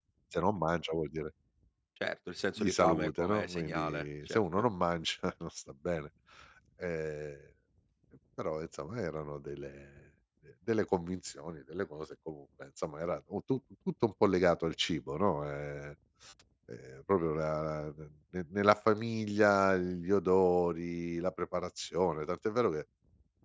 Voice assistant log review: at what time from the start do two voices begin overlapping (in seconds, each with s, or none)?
2.6 s